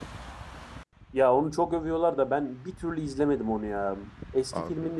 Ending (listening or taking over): listening